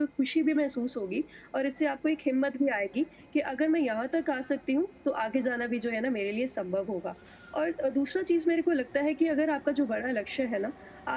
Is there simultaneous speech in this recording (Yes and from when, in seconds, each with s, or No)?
No